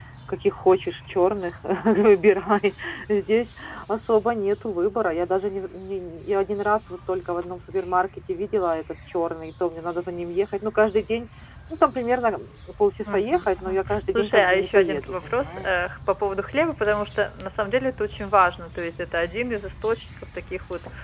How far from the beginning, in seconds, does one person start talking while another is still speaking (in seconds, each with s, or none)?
13.0 s